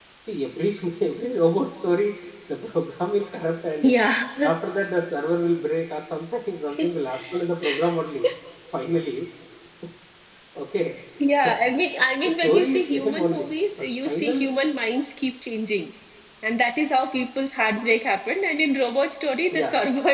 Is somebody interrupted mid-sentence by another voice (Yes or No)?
Yes